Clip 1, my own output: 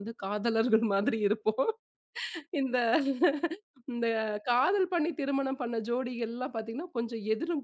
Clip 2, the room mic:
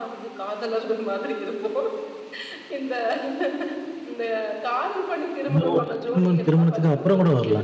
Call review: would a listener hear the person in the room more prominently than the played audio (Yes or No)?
Yes